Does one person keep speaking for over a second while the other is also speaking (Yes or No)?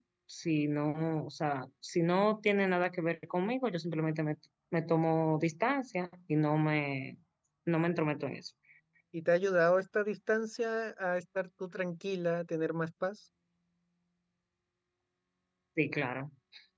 No